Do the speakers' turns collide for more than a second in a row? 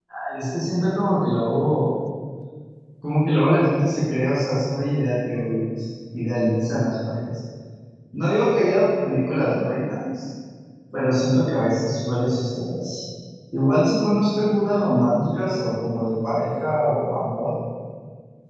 No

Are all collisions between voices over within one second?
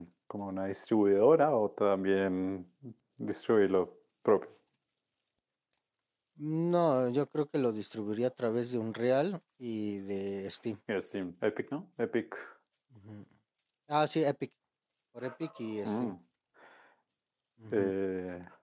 Yes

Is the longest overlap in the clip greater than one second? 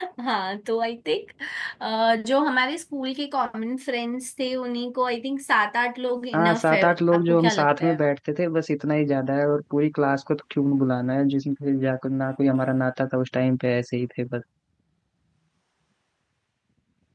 Yes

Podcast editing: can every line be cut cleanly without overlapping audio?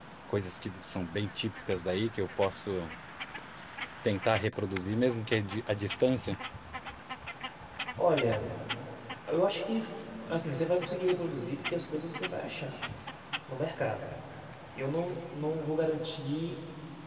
Yes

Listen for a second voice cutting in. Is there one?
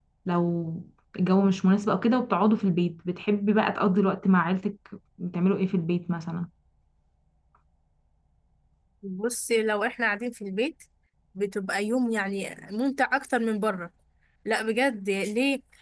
No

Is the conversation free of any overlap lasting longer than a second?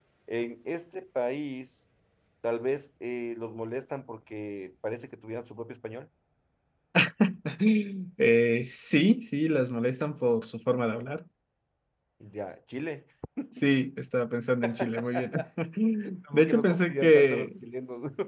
No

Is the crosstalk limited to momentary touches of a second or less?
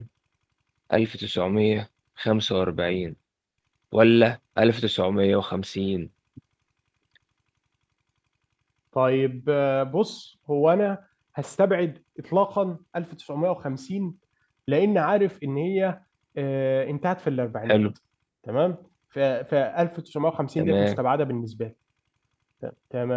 Yes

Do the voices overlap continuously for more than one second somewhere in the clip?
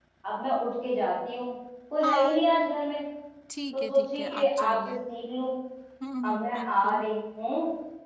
Yes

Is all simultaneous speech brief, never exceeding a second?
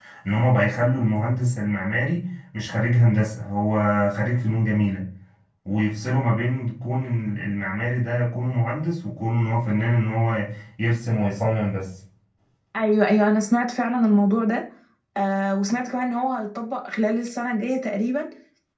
Yes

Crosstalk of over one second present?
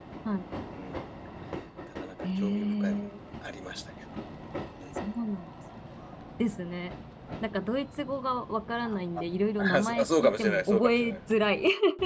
Yes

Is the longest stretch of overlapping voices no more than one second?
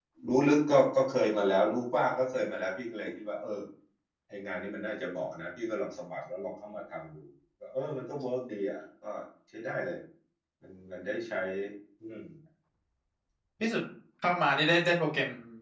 Yes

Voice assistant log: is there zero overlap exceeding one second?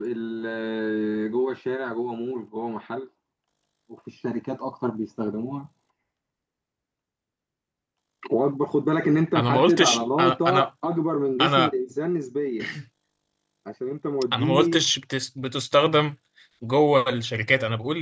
No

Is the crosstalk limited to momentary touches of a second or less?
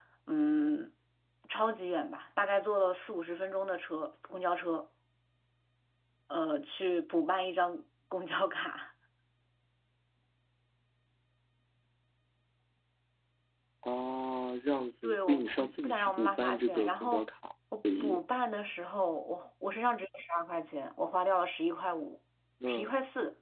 No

